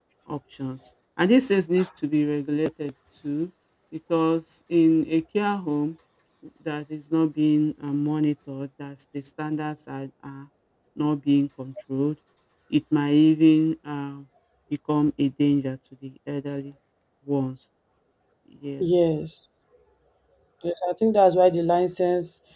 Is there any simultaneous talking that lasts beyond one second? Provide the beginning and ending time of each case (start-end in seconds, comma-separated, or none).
none